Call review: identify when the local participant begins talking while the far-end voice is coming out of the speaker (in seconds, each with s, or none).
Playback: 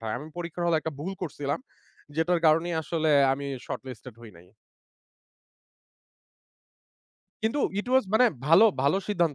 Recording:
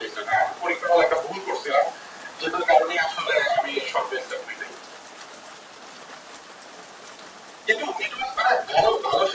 none